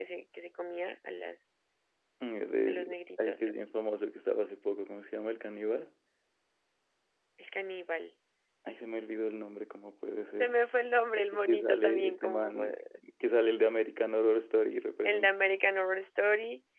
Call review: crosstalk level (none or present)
present